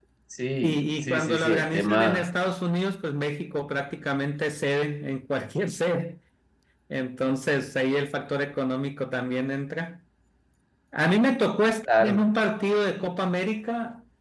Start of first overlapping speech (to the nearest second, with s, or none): 1 s